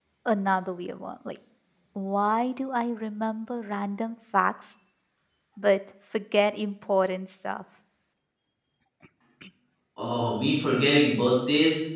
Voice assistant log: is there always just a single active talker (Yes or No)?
Yes